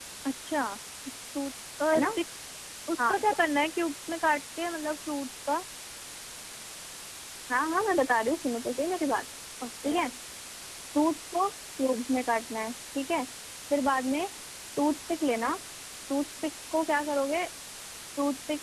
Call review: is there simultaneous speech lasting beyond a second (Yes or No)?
No